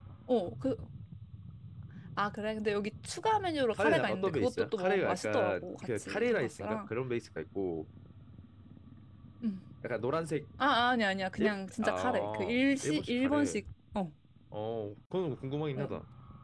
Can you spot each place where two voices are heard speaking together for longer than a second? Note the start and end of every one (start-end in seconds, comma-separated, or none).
3.7-6.8, 11.4-13.6